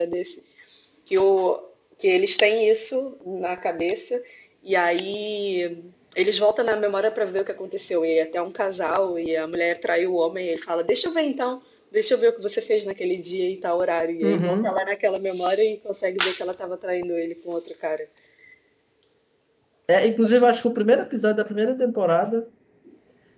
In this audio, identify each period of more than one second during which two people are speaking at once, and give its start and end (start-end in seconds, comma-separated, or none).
none